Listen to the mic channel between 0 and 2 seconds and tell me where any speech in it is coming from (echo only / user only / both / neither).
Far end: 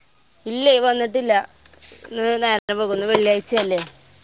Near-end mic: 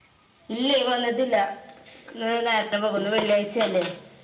echo only